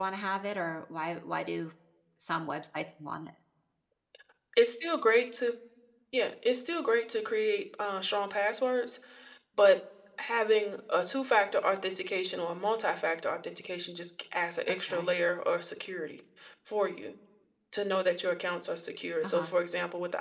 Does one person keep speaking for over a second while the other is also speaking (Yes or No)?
No